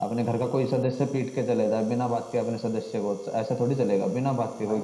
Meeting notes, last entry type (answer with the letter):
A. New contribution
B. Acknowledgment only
A